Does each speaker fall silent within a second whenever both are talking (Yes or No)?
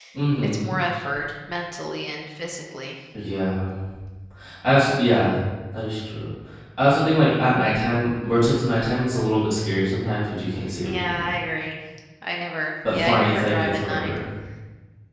No